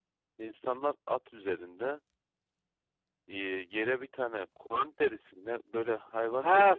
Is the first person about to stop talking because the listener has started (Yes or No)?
Yes